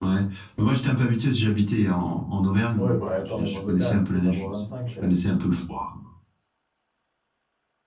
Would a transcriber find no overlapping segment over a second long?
No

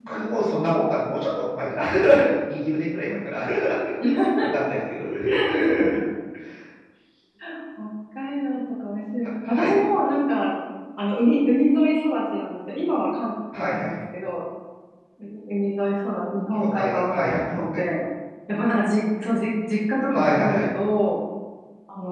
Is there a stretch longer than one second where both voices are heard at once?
Yes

